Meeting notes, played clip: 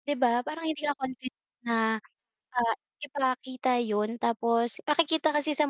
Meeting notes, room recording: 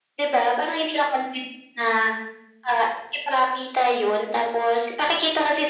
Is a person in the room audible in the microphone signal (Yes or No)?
No